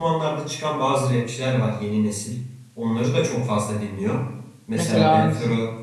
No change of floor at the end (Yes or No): Yes